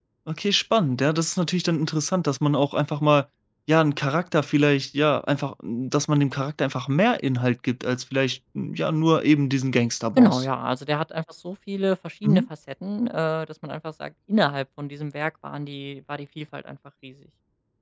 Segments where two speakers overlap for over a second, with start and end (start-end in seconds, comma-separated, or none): none